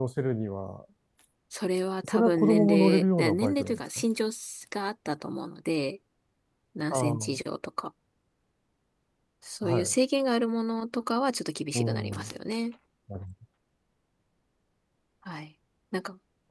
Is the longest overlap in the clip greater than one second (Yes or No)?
Yes